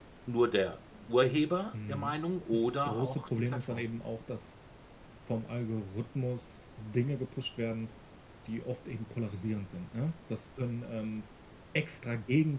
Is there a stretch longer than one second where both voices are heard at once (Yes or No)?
Yes